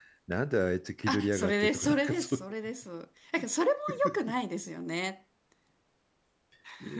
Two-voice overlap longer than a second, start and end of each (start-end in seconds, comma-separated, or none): 1.1-2.5